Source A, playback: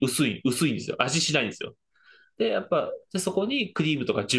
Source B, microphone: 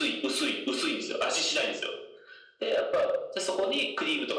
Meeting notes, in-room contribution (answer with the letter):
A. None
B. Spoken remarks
A